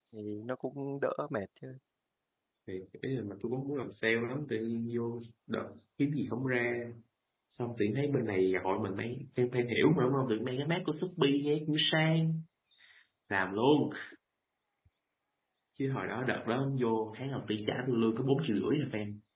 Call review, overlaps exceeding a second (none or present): none